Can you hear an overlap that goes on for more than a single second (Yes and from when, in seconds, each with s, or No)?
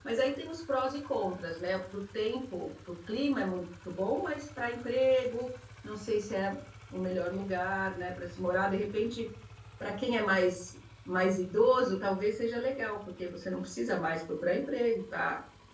No